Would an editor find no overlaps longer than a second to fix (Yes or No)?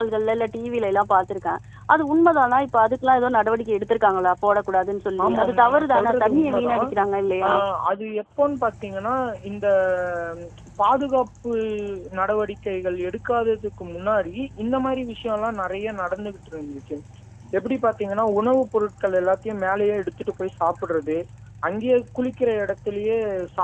No